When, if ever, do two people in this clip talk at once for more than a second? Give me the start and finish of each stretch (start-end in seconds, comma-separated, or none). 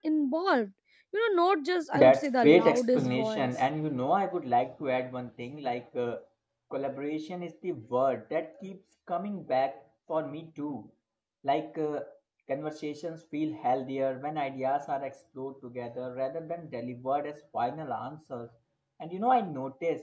1.9-3.5